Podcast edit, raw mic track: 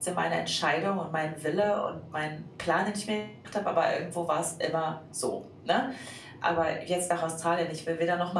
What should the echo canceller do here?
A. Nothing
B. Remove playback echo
A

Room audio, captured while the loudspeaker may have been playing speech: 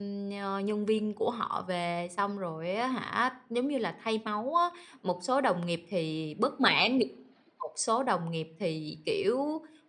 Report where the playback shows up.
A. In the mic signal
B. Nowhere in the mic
B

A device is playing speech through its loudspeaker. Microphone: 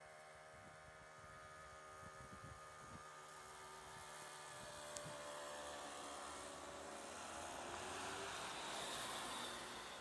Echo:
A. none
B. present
A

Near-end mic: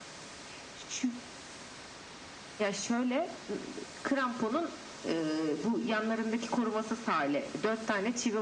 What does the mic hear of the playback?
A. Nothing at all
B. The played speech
B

